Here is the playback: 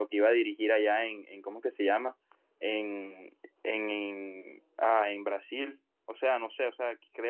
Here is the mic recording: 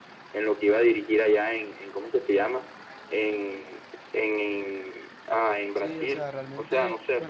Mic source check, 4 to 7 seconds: both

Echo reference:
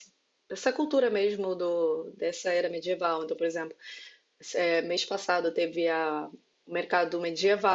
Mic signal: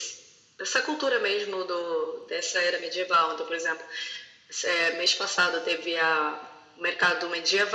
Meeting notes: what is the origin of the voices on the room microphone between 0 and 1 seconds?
echo only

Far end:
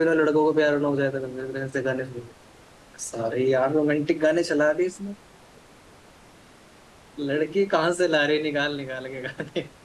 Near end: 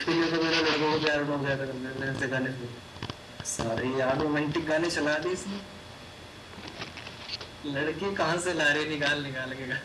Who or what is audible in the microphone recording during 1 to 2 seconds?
echo only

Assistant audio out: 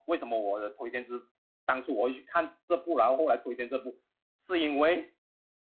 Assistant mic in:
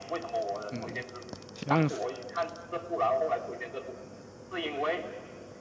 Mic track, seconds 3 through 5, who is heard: echo only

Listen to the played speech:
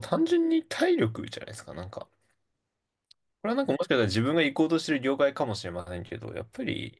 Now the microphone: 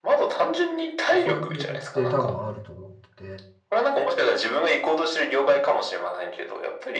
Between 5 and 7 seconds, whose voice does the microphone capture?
echo only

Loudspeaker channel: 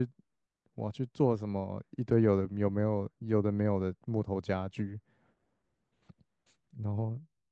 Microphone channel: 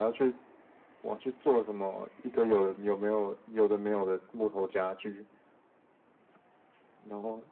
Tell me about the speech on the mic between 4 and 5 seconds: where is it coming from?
echo only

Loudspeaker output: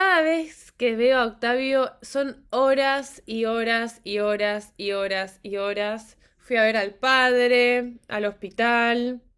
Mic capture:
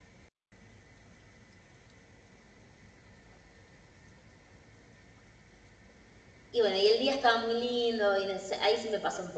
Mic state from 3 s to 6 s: neither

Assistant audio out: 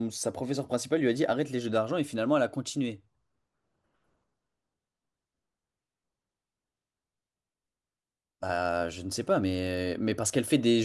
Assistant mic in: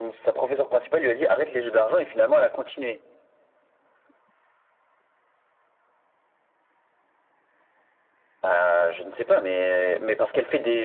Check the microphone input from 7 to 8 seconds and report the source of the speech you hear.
neither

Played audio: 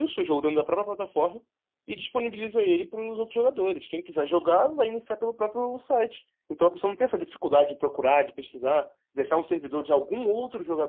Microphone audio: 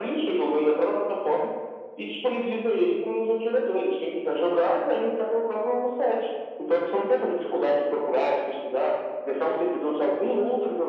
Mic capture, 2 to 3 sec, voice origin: echo only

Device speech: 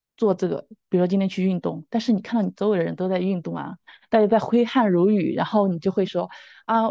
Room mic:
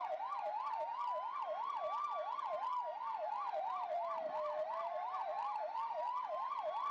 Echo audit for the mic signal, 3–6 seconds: neither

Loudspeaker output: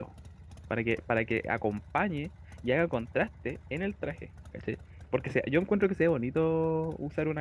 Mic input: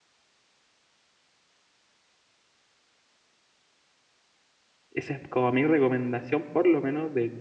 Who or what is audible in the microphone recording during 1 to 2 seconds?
neither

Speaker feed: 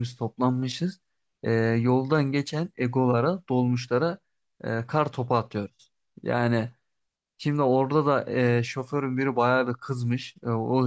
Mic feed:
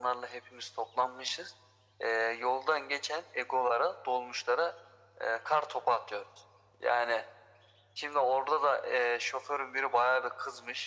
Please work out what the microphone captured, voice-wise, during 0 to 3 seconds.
echo only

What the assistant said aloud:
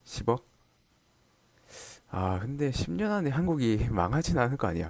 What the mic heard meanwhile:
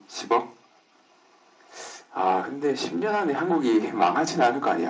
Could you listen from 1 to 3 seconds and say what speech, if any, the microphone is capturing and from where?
echo only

